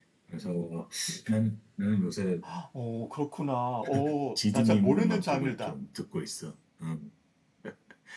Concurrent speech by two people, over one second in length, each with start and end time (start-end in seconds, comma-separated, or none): 4.3-5.8